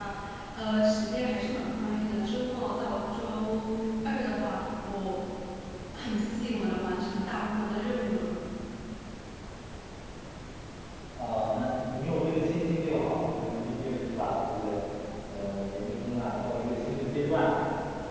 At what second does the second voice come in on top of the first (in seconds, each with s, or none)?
none